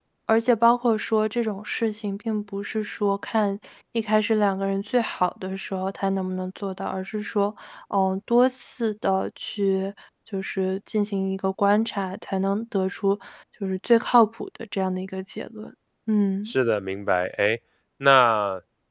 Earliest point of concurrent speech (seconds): none

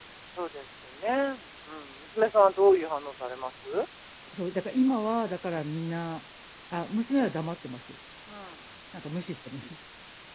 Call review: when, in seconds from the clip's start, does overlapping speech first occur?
none

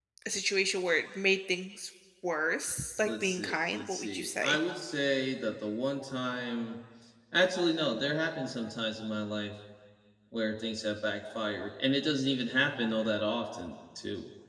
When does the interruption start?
3 s

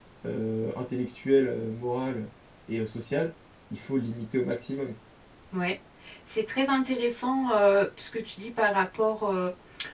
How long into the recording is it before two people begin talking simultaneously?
none

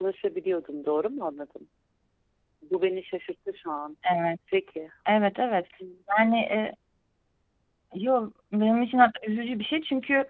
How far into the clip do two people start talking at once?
none

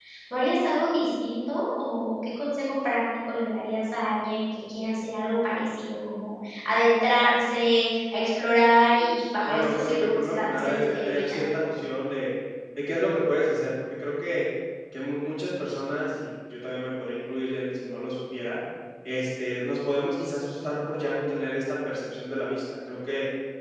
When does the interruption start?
9 s

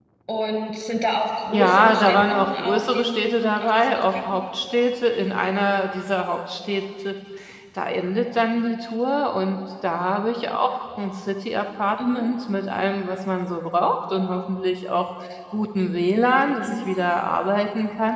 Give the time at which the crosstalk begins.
2 s

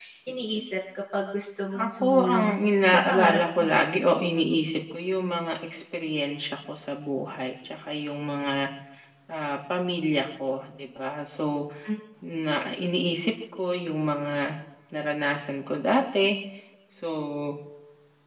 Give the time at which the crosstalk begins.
2 s

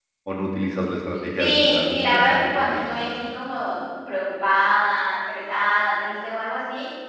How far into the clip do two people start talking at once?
1 s

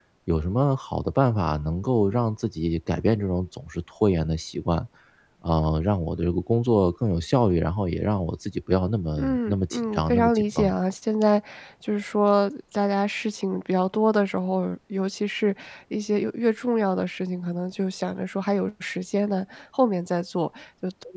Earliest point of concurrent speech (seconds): 9 s

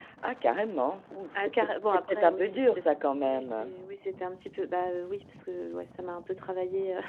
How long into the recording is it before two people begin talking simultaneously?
1 s

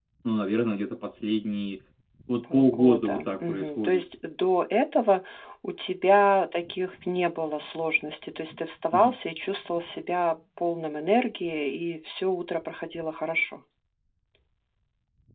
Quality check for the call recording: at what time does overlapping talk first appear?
3 s

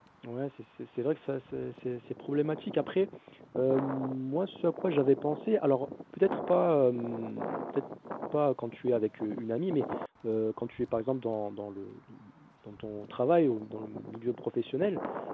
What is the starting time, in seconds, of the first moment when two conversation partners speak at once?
none

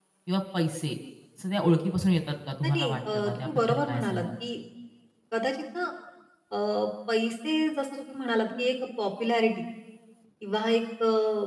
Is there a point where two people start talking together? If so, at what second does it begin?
3 s

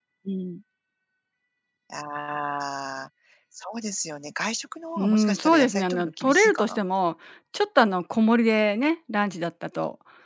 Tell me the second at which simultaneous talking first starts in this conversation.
5 s

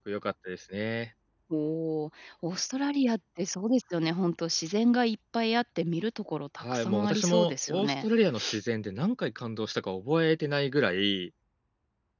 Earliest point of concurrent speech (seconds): 7 s

